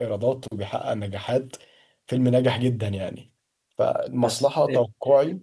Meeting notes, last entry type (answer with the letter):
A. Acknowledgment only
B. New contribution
A